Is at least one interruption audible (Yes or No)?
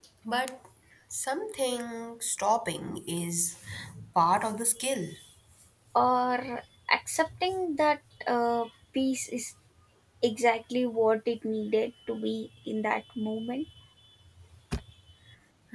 No